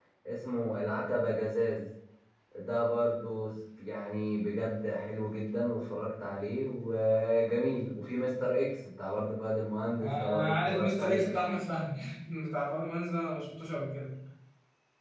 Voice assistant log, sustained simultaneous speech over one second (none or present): present